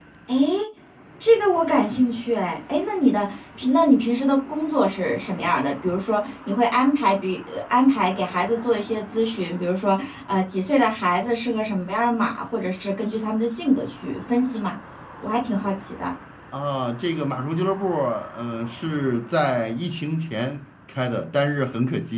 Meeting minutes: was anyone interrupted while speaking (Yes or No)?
No